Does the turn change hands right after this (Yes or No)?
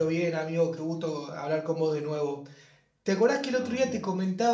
No